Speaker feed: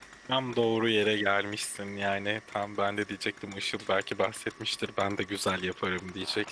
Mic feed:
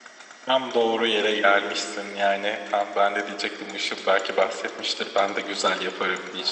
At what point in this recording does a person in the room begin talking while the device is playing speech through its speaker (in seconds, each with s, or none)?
none